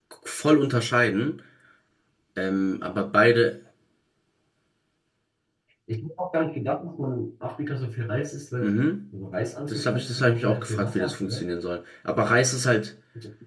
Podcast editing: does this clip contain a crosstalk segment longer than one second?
Yes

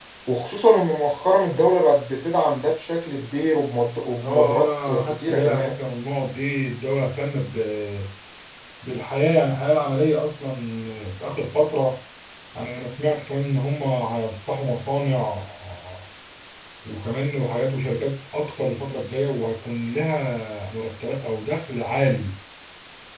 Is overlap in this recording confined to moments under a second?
No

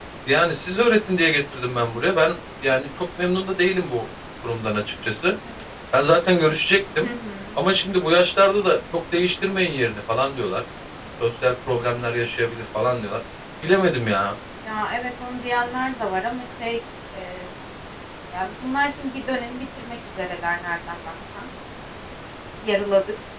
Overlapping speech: No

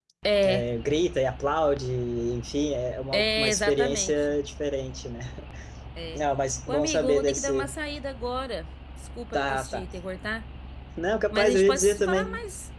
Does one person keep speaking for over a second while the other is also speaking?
Yes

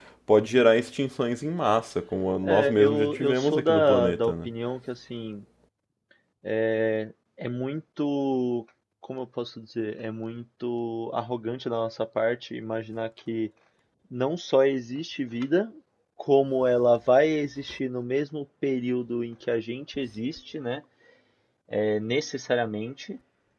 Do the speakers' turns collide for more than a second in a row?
Yes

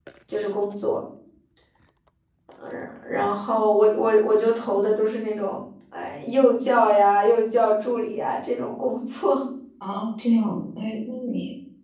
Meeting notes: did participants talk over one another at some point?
No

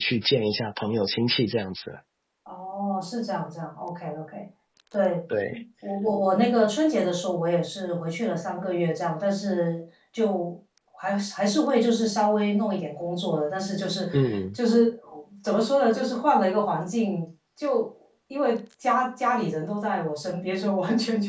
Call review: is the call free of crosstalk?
Yes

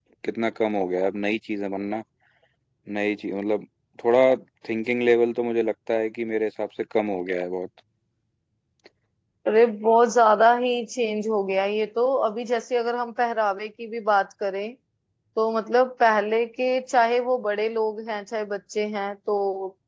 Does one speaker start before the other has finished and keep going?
No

